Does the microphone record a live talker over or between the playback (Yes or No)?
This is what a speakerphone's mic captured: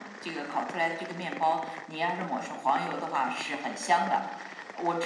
No